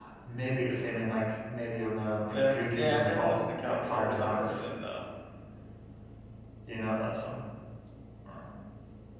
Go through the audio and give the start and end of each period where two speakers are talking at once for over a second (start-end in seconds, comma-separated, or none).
2.3-4.6